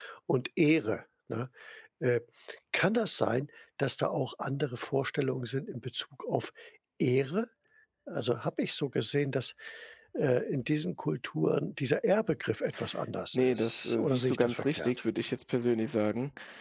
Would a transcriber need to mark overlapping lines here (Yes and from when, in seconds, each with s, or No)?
Yes, from 13.3 s